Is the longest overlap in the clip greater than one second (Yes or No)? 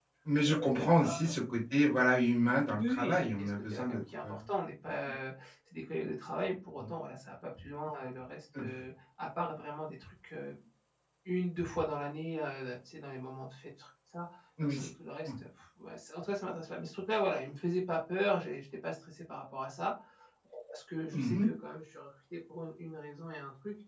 Yes